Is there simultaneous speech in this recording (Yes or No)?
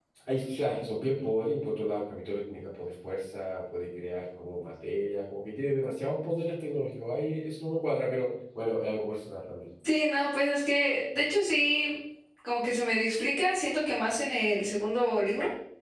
No